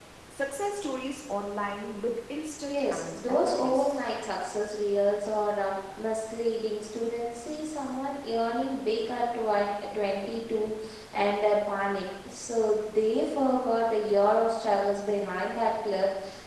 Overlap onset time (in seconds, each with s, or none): 2.7 s